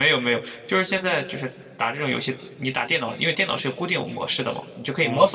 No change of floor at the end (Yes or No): Yes